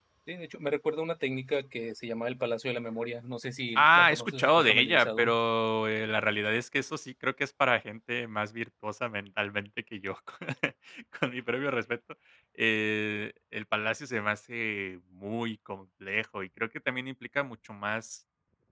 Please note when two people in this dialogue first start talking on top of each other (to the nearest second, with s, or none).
4 s